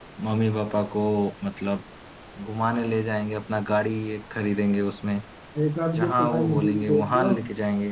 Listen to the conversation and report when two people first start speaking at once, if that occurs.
6.0 s

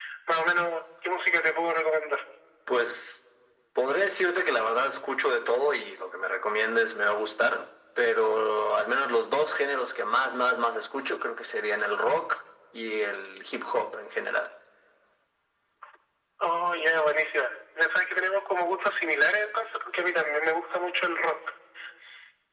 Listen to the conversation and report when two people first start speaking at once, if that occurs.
none

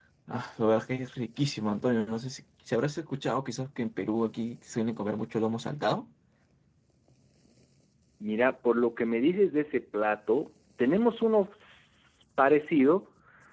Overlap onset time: none

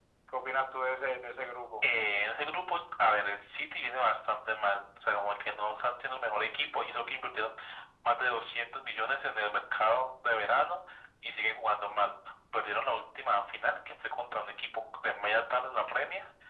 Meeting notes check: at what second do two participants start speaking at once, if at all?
none

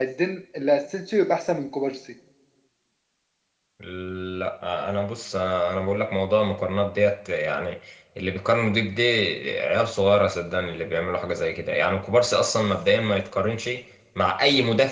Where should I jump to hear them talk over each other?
none

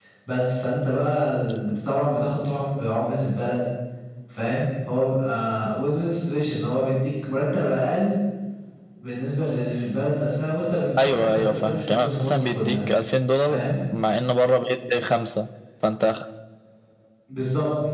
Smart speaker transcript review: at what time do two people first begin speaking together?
11.0 s

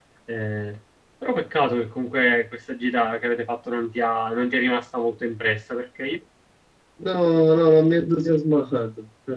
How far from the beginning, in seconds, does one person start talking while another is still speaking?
none

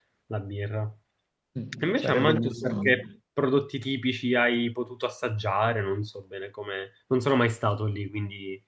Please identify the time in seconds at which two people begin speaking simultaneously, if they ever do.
1.8 s

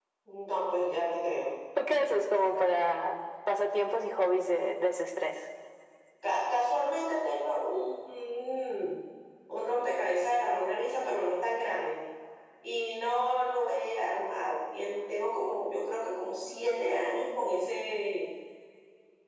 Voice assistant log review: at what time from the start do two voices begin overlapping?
none

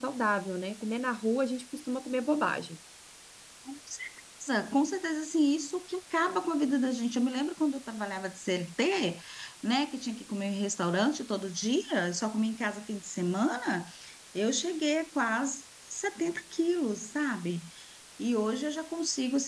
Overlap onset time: none

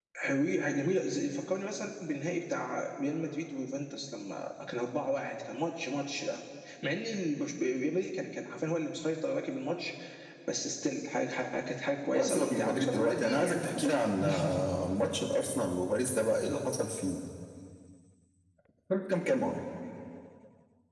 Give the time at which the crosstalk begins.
12.1 s

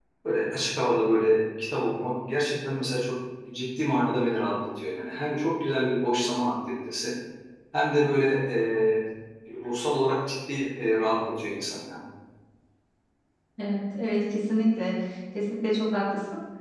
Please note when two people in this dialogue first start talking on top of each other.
none

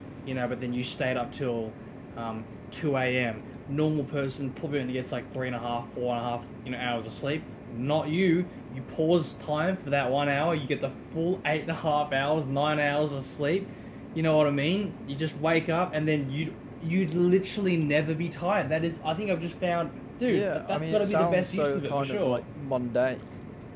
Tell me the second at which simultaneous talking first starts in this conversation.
20.3 s

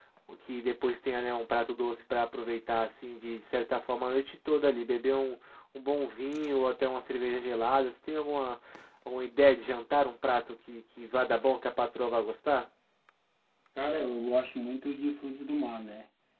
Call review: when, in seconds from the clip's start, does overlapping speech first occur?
none

